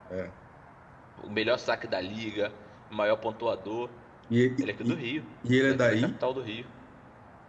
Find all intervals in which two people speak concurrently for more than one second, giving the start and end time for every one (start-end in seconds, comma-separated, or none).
none